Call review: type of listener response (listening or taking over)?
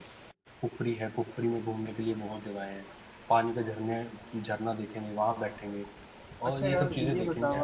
taking over